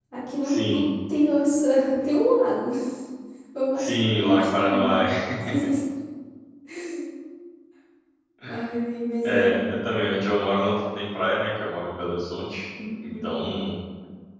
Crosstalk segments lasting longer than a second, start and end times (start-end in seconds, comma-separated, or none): 3.8-5.0